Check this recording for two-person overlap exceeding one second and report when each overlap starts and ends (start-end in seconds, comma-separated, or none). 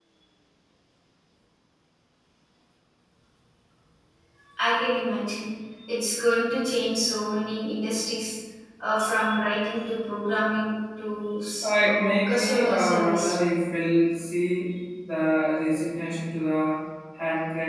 11.6-13.3